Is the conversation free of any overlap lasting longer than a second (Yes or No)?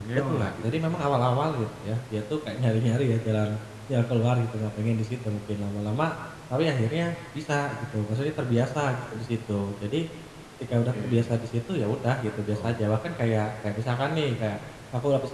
No